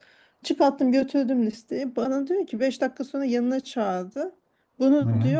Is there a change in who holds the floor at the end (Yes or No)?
No